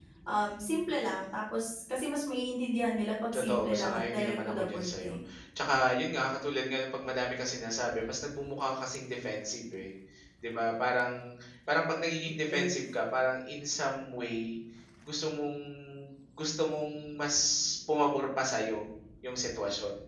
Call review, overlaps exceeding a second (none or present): present